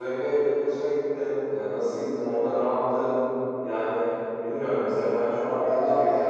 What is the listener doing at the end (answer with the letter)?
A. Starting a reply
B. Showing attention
A